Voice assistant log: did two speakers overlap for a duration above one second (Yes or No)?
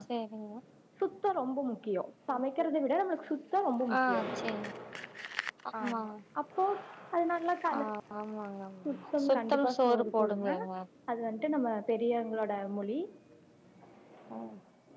Yes